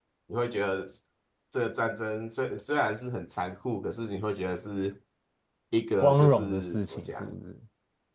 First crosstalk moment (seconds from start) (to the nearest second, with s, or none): 6 s